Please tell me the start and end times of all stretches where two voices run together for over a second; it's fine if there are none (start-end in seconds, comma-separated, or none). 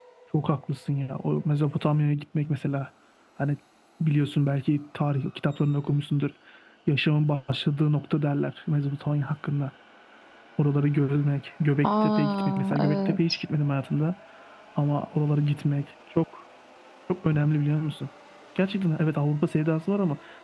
11.8-13.2